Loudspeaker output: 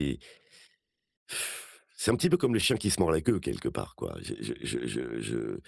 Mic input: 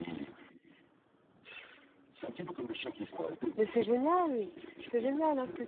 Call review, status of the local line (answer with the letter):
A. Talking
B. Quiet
A